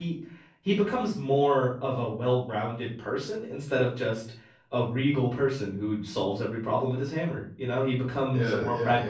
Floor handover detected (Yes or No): Yes